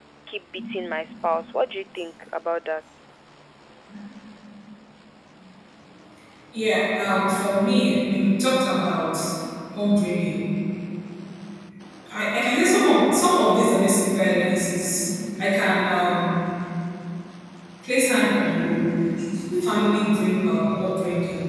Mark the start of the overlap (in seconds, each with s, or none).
none